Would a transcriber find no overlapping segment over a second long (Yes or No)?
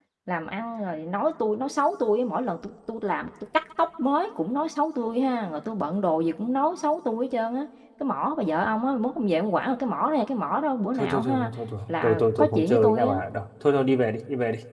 No